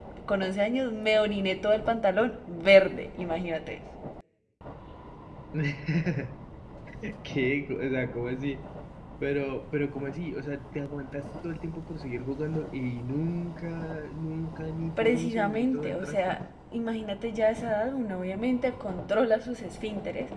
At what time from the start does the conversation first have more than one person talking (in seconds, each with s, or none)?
15.0 s